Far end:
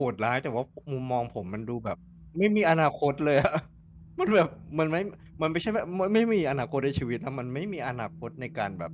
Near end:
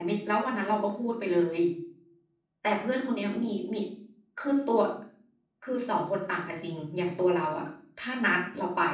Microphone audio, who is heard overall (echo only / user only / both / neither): user only